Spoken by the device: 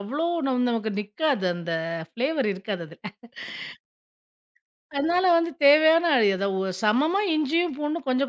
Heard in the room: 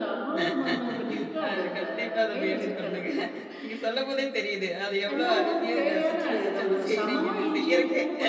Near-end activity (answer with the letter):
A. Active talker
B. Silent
A